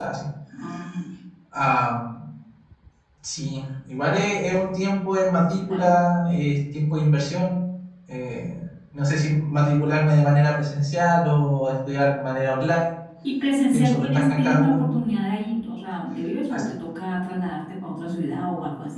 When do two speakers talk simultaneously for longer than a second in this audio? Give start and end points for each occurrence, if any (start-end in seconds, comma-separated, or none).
13.7-14.9